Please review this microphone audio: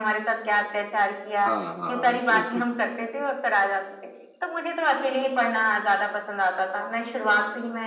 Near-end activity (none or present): present